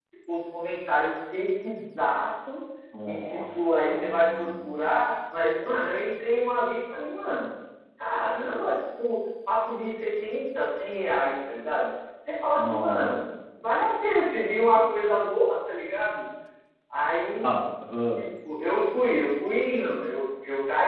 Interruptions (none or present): present